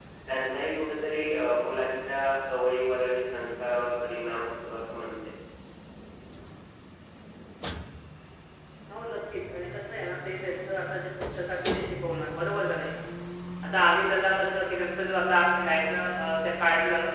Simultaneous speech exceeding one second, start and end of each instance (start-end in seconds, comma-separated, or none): none